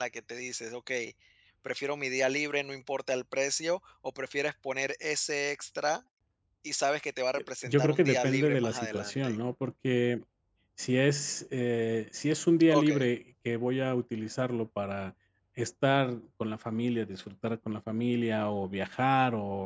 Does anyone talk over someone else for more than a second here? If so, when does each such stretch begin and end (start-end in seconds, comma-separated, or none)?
7.3-9.3